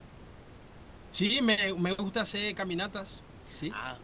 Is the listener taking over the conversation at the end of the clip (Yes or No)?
Yes